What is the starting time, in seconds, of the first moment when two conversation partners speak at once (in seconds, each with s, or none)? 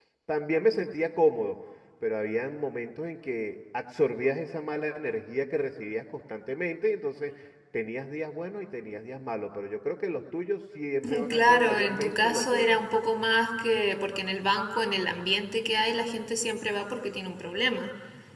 11.0 s